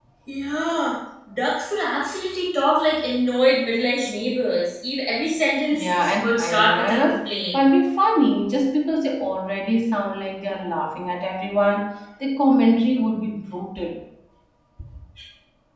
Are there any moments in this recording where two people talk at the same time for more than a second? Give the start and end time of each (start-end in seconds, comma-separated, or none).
5.7-7.6